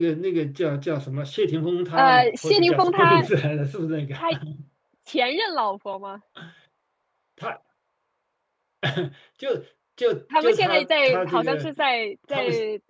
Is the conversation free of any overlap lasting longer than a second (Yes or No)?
No